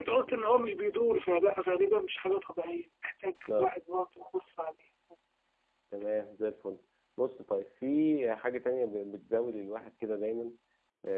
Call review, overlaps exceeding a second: none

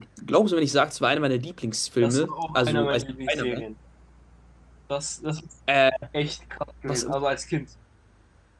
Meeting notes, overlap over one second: present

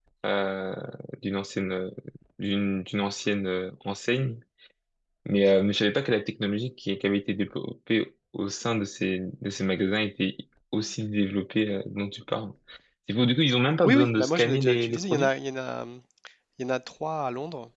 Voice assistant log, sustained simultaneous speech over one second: present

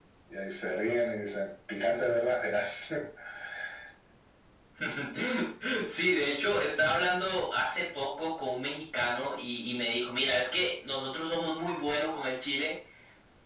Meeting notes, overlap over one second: none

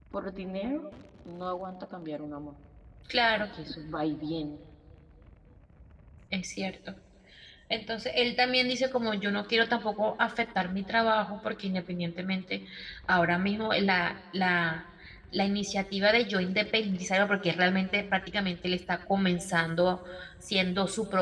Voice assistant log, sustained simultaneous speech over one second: none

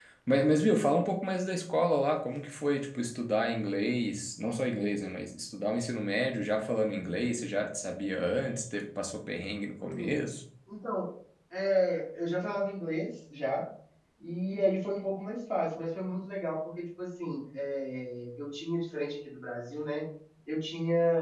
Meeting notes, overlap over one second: none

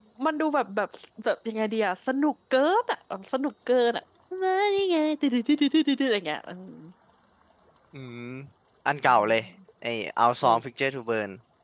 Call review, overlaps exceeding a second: none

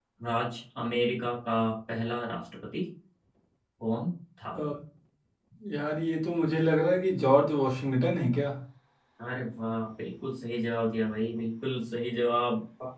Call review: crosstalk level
none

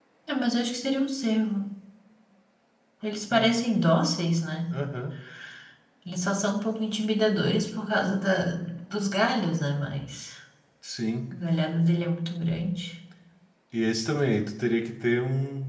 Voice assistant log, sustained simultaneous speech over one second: none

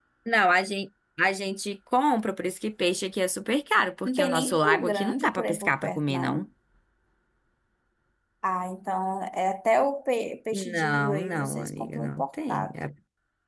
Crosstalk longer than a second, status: present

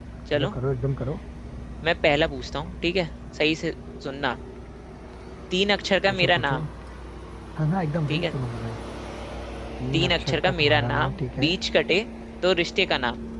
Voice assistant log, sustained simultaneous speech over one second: present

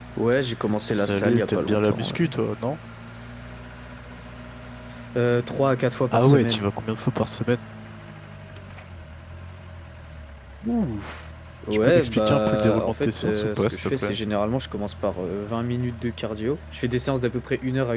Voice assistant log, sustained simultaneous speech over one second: present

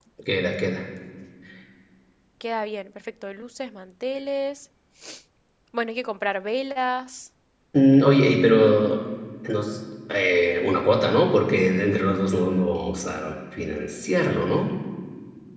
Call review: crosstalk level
none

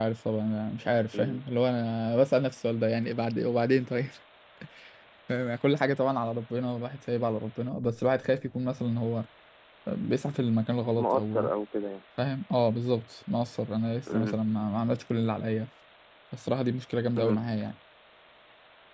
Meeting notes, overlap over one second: none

